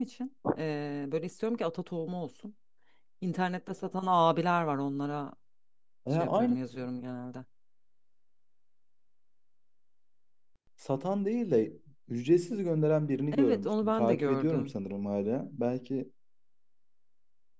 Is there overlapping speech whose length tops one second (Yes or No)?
Yes